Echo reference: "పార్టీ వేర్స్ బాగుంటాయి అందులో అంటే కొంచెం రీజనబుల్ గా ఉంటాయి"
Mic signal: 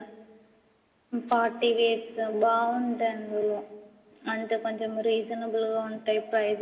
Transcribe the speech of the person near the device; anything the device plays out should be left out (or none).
none